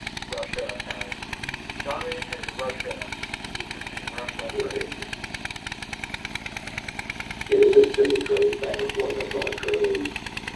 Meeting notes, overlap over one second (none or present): none